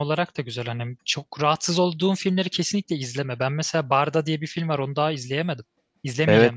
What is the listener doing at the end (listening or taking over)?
taking over